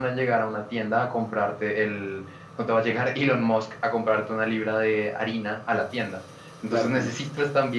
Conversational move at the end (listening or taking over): listening